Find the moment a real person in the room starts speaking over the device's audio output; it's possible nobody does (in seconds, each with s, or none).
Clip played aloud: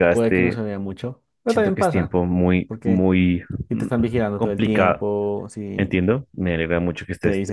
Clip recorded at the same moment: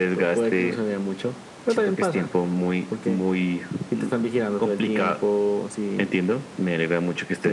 none